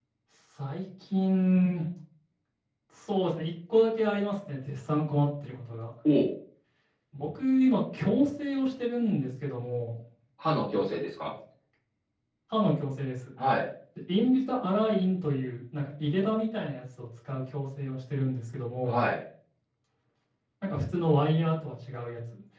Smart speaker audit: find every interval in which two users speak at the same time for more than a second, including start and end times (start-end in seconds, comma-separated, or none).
none